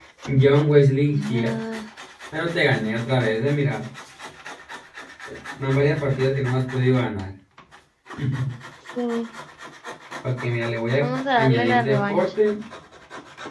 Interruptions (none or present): present